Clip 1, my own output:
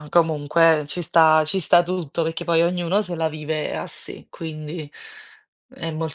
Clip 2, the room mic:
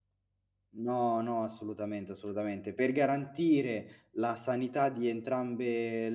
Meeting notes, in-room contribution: present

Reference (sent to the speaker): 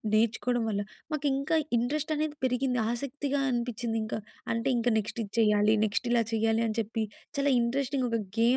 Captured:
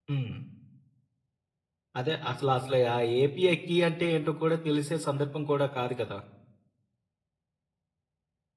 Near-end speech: present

